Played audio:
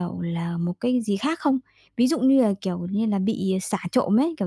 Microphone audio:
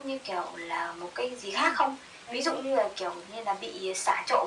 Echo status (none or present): present